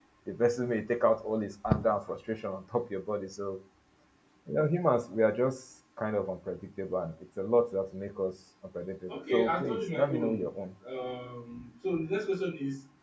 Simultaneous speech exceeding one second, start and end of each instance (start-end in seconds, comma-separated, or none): 9.1-10.4